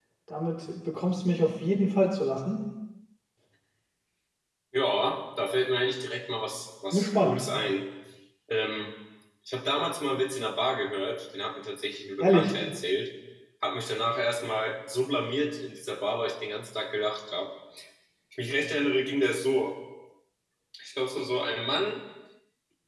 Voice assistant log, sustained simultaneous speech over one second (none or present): none